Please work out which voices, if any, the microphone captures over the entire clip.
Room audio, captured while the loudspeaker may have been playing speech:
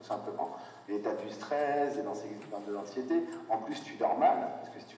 echo only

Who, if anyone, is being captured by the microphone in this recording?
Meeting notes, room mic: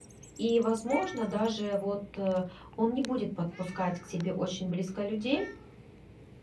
user only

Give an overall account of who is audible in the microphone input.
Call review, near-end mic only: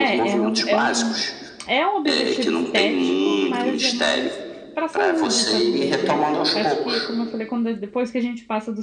both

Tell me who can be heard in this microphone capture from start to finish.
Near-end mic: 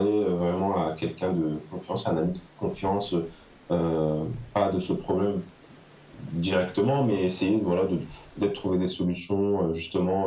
echo only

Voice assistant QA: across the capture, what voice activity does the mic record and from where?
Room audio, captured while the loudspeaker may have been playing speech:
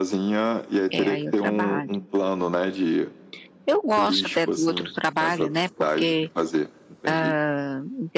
both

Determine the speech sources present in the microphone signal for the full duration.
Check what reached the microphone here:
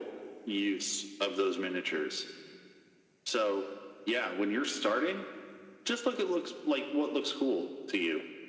echo only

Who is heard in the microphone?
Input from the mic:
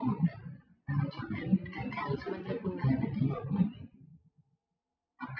both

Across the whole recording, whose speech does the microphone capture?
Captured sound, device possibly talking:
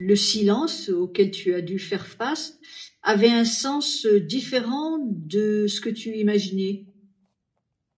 user only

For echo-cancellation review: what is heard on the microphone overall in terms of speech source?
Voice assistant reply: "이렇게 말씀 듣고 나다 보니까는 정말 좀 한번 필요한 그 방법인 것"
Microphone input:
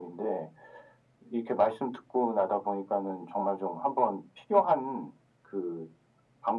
echo only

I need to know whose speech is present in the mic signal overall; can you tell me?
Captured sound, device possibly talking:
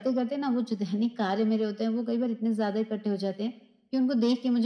echo only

